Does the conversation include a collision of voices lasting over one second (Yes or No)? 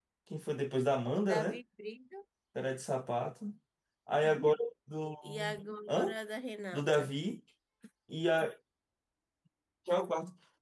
No